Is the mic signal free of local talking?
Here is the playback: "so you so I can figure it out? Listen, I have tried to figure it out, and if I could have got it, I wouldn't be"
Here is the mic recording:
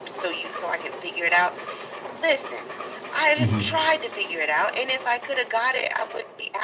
No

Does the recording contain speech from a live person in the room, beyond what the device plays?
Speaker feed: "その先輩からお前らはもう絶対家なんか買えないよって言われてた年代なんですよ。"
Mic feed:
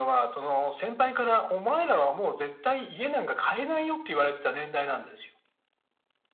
No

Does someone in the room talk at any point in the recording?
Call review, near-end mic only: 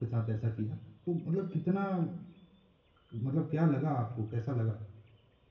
Yes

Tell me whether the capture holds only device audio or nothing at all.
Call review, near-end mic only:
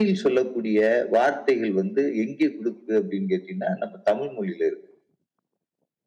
Yes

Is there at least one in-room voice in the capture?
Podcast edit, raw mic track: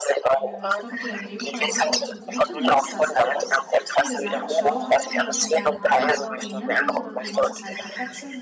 Yes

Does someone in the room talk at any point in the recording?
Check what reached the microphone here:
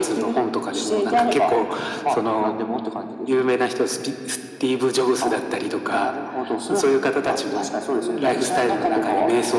No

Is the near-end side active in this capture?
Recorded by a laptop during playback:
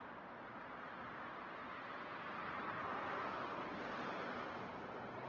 No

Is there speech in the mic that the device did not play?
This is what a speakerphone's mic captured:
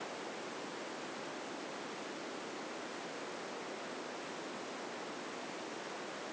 No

